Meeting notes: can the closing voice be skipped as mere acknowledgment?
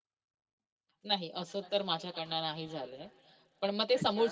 Yes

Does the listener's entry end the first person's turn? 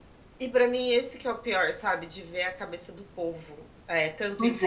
No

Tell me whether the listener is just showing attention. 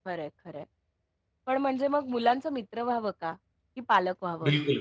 No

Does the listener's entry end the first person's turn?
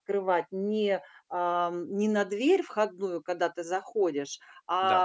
No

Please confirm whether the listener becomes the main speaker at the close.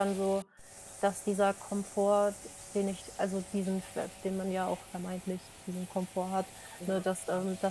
No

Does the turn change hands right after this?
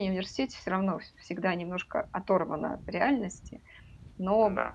No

